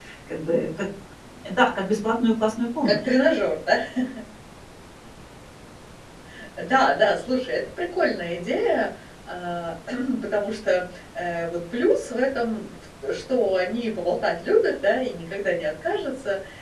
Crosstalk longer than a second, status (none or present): none